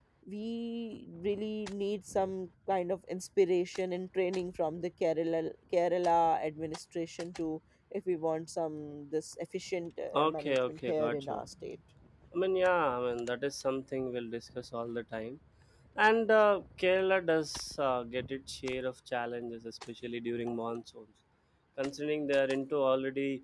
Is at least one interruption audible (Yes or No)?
Yes